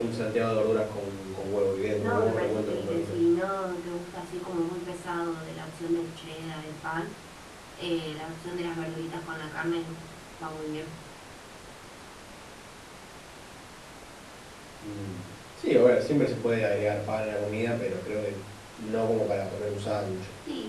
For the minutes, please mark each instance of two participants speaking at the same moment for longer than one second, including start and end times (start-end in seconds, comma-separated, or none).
2.0-3.2